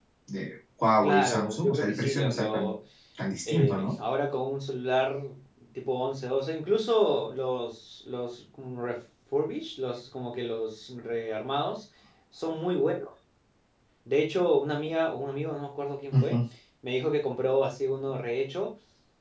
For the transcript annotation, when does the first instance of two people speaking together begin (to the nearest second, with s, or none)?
1 s